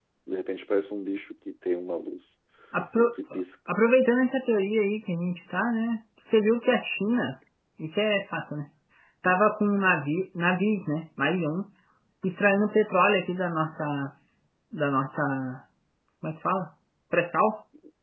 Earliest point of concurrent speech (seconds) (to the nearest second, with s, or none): none